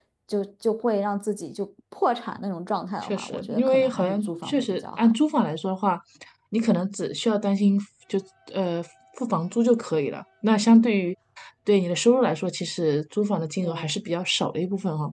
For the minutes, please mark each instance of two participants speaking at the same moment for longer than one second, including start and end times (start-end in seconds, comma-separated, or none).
3.0-5.1